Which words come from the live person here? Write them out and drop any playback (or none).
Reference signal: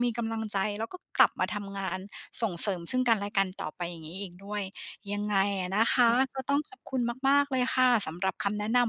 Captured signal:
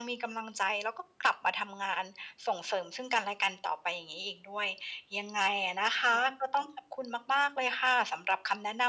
none